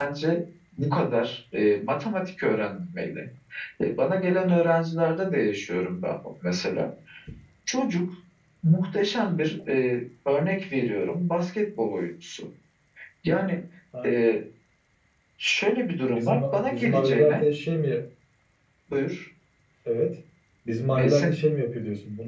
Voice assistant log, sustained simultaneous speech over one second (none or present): present